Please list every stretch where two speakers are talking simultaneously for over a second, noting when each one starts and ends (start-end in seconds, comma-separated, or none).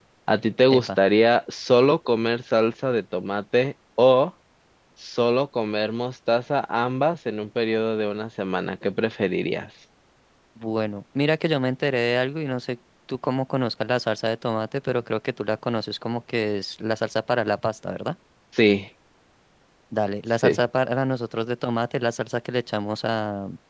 none